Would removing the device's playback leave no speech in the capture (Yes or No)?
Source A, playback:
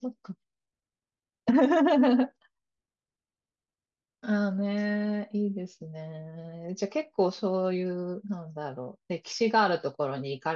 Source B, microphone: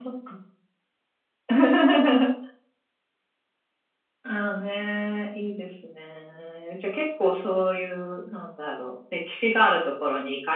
Yes